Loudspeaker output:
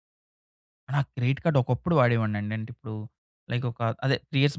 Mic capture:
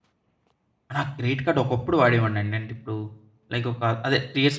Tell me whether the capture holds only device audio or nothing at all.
No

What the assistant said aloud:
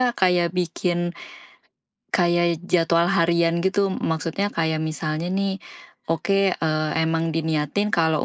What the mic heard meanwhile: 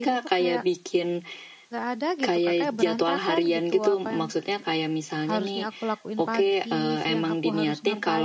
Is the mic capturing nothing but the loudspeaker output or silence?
No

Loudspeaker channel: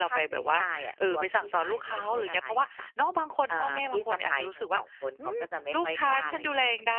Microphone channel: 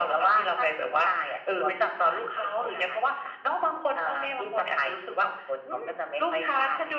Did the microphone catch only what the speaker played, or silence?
Yes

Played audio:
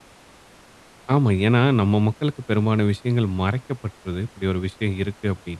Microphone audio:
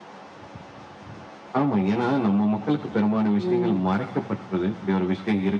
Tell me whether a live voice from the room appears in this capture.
Yes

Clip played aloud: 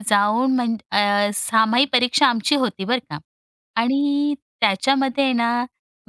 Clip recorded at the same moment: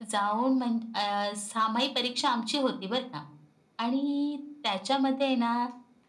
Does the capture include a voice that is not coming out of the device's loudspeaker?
No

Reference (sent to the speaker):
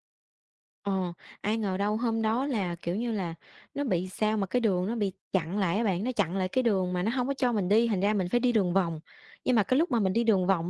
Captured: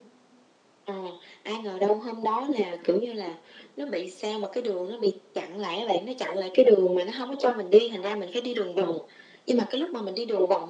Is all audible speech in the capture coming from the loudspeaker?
Yes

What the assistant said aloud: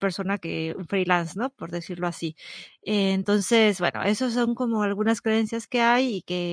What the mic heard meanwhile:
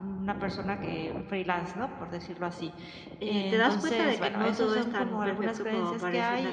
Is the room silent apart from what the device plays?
No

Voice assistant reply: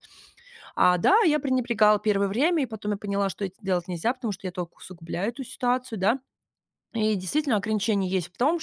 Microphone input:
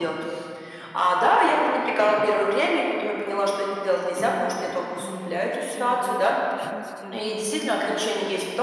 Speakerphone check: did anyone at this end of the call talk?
Yes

